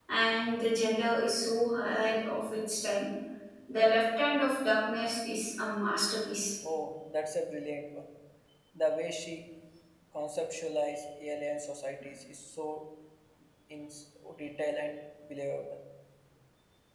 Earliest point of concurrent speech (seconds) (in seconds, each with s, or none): none